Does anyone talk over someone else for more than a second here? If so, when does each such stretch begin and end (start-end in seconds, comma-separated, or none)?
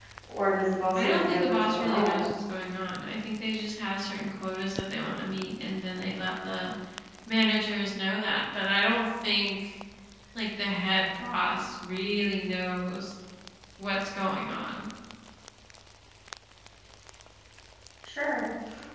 1.0-2.3